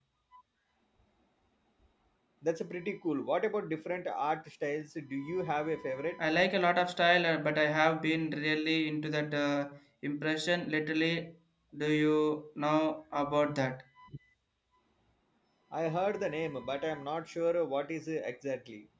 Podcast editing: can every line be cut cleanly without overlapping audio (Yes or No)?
Yes